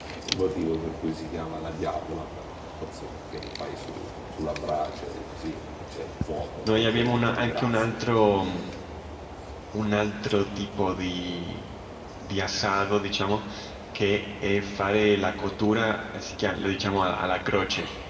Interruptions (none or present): present